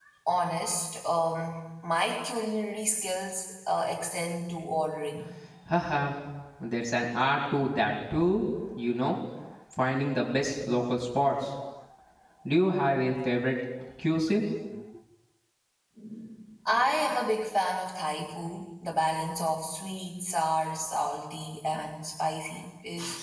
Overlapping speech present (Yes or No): No